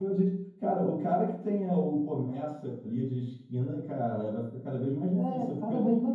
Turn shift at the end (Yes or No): Yes